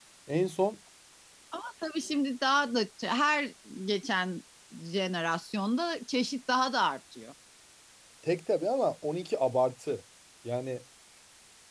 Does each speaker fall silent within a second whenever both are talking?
Yes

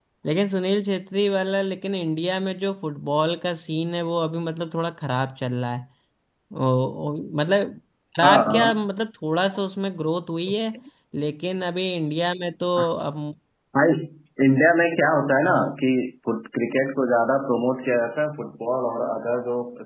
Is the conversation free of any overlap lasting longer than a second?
Yes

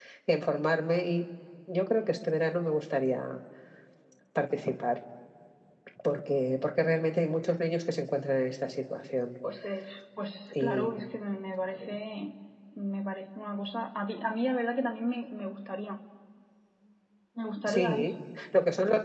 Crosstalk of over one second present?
No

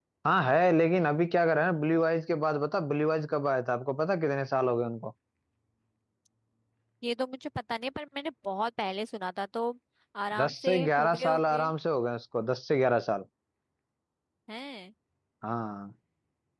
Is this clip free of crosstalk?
No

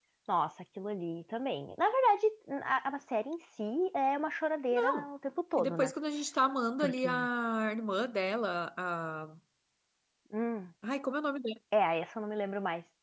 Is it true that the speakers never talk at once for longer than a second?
Yes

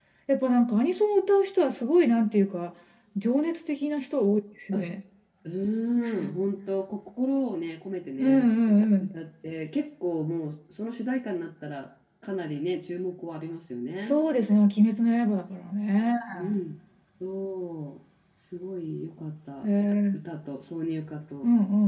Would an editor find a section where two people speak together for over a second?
No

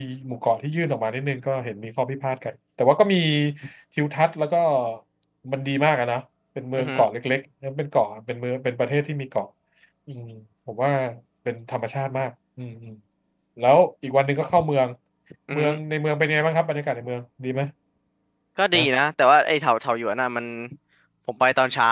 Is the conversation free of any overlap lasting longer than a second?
Yes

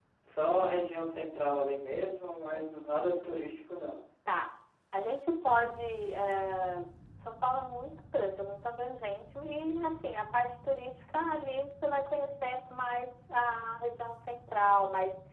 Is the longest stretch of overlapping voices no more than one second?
Yes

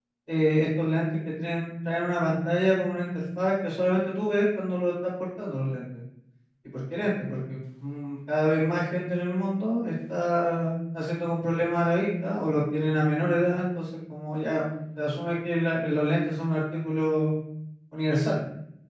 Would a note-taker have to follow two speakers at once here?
No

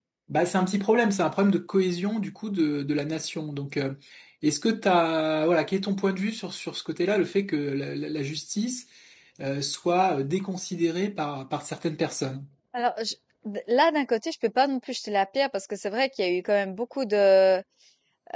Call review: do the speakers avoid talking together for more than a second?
Yes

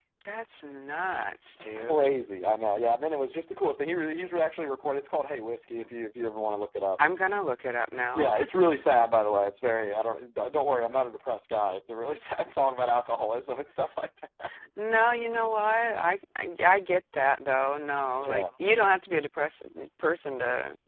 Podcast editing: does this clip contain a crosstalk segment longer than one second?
No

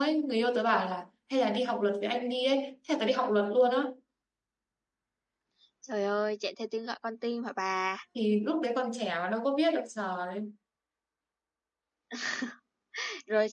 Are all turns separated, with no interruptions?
Yes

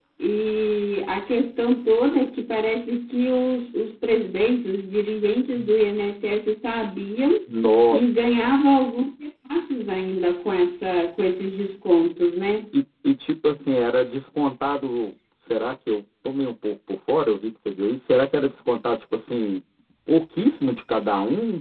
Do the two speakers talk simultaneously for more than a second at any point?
No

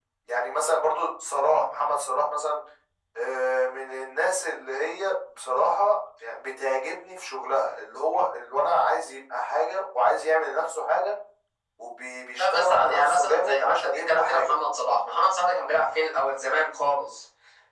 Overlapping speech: Yes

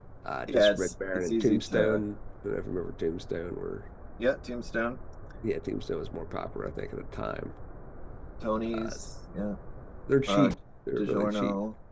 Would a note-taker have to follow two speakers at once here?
Yes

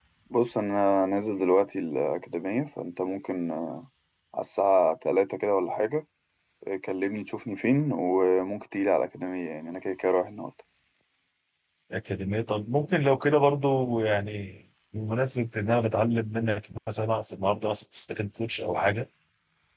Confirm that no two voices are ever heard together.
Yes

